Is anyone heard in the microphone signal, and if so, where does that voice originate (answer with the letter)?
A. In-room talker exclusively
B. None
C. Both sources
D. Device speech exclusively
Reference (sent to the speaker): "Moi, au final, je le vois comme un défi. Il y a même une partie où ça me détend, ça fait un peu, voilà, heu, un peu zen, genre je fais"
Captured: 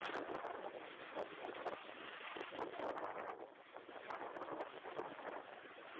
B